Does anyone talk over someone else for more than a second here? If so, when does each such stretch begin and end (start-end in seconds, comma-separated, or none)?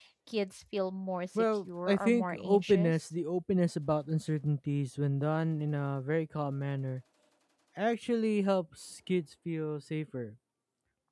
1.4-2.9